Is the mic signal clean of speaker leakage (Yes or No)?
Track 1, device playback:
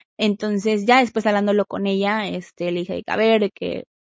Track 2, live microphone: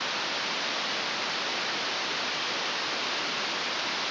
Yes